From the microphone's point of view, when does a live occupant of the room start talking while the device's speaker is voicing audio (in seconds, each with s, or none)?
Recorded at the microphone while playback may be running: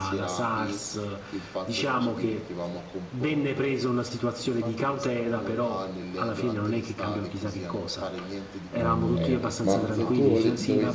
8.8 s